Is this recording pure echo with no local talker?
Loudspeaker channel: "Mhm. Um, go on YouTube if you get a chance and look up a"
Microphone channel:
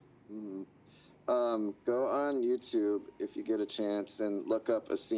Yes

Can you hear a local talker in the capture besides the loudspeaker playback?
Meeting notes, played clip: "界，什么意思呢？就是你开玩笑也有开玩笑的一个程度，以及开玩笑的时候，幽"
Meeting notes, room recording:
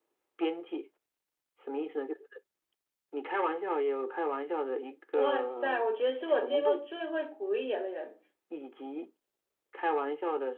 Yes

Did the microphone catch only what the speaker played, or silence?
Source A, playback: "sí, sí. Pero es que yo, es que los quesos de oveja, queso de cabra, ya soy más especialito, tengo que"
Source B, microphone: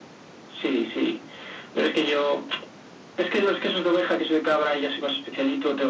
Yes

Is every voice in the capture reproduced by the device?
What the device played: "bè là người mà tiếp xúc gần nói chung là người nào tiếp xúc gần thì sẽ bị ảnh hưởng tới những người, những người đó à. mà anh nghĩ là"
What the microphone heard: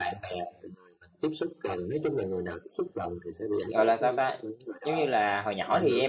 No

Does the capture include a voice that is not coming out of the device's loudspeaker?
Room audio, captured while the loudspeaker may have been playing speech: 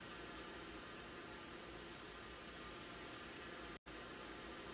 No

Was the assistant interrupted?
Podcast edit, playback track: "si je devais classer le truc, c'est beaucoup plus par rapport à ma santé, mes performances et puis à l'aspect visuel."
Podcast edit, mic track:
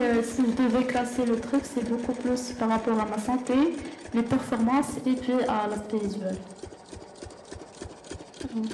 No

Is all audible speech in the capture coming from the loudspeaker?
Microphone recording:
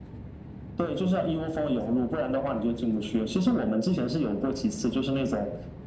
Yes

